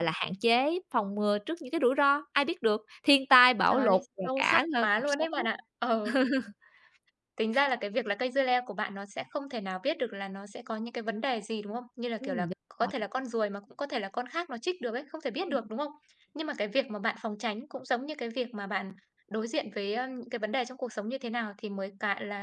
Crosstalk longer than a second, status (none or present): present